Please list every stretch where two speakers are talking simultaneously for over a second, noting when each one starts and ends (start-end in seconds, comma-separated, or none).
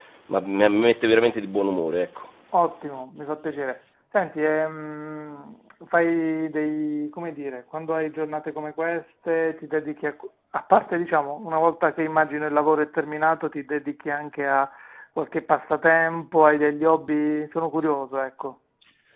none